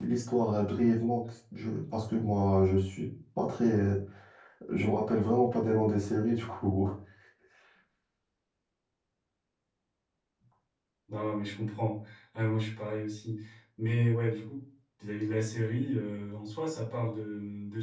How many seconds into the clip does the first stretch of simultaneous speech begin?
none

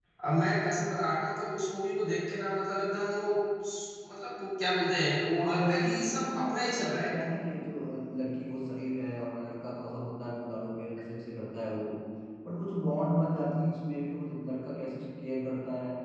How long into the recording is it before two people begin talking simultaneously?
5.4 s

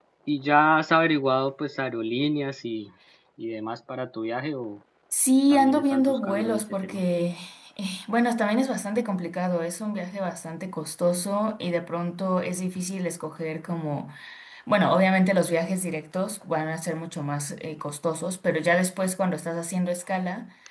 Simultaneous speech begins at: 5.5 s

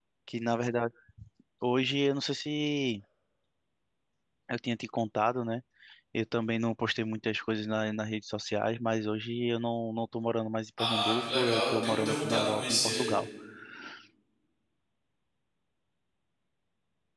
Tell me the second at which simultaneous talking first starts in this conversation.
10.8 s

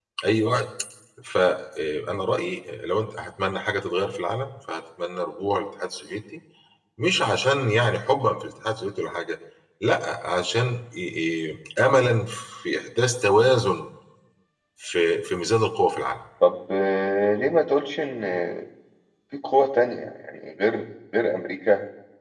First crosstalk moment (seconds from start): none

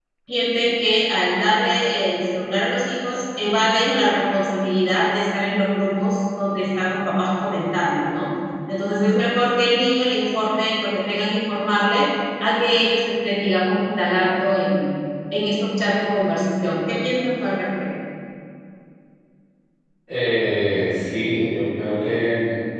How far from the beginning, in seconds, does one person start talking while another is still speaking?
none

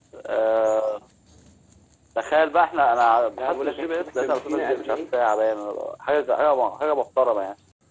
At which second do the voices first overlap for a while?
3.4 s

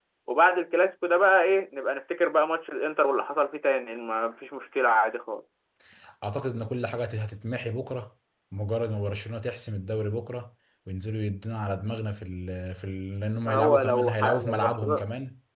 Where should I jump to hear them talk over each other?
13.4 s

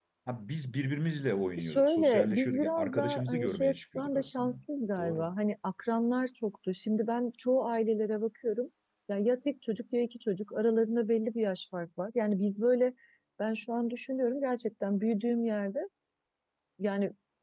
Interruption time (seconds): 1.6 s

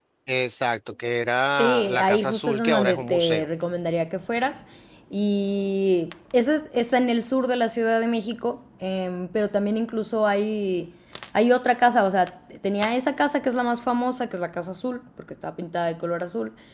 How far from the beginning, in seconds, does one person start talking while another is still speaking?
1.5 s

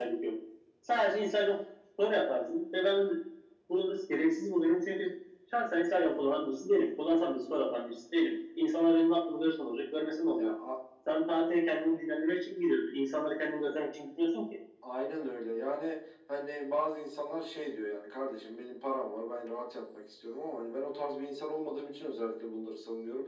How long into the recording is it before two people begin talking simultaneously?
none

